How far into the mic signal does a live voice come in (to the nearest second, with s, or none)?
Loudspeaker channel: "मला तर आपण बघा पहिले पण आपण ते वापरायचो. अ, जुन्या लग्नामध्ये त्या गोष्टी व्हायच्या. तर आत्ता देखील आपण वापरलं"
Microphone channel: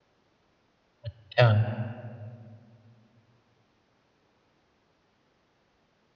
1 s